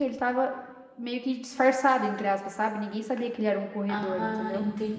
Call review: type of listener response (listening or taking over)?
taking over